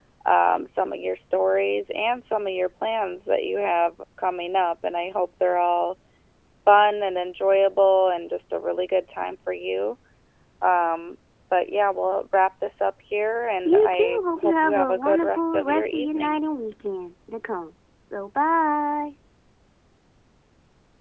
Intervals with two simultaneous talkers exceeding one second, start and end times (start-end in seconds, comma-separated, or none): 13.7-16.4